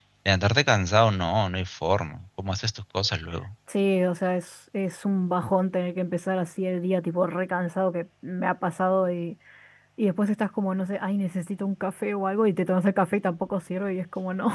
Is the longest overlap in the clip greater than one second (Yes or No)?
No